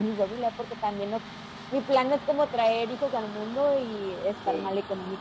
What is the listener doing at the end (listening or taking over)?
taking over